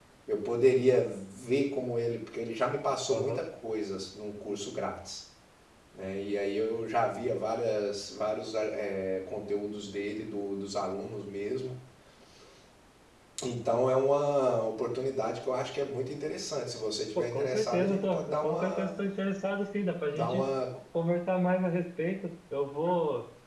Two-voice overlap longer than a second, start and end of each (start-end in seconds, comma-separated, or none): 17.1-18.9